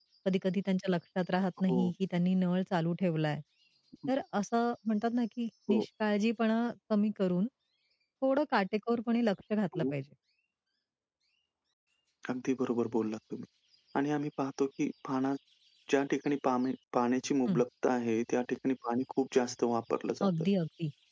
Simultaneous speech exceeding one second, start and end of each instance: none

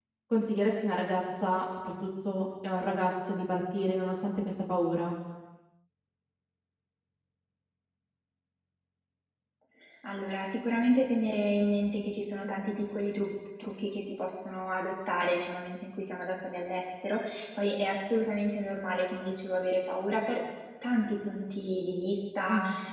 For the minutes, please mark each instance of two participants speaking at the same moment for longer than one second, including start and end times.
none

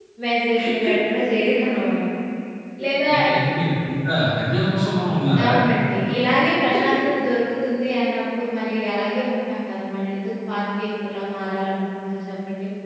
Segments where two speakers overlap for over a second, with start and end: none

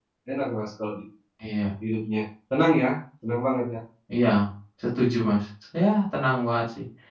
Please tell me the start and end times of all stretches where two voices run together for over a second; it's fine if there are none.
none

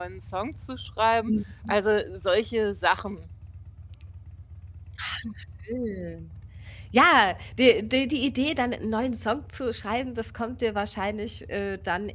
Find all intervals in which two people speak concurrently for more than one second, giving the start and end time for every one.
none

